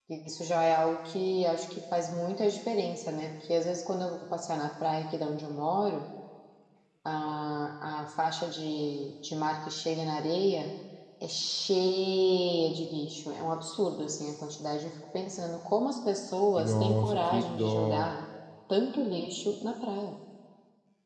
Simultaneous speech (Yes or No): Yes